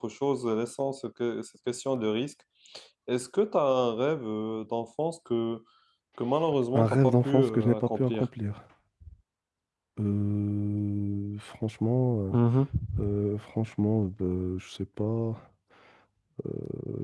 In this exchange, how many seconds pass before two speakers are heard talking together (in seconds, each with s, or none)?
6.7 s